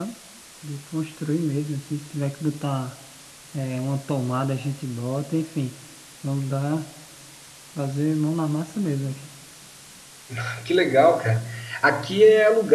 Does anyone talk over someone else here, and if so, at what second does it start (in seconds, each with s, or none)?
none